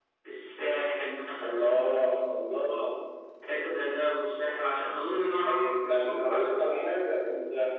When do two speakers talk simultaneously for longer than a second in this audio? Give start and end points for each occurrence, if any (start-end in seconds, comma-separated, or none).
5.5-7.0